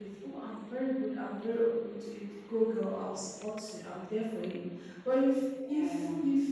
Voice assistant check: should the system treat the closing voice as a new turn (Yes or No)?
No